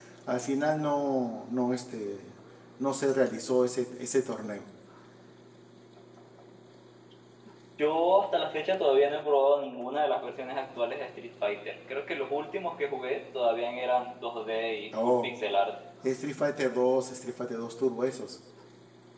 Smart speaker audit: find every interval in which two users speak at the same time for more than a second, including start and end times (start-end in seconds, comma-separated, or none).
none